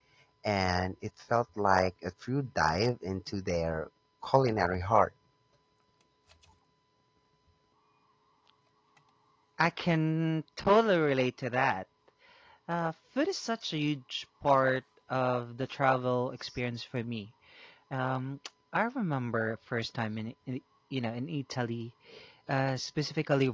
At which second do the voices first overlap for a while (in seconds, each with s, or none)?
none